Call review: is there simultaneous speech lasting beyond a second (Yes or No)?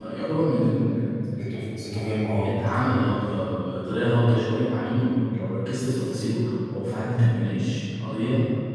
No